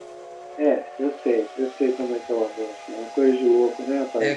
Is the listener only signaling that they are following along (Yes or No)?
No